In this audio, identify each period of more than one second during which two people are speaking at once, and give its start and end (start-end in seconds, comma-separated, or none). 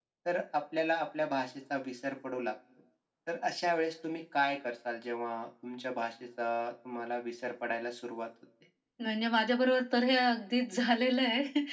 none